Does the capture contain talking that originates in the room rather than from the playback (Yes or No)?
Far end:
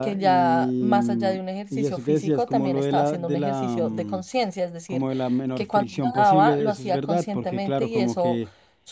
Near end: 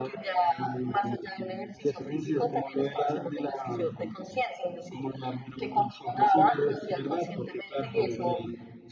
No